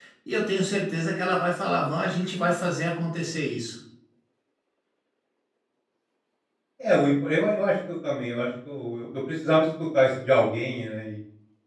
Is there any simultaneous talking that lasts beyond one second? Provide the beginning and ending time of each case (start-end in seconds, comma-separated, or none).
none